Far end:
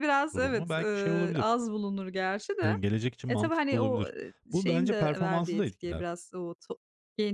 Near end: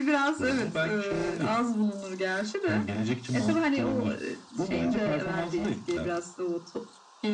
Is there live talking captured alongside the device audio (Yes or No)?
No